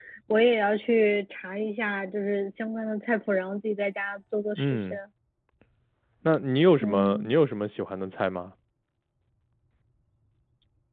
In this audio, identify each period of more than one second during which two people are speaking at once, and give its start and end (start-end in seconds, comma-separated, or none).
none